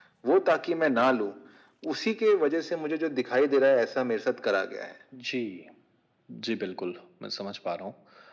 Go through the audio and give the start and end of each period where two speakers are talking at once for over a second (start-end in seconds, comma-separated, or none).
none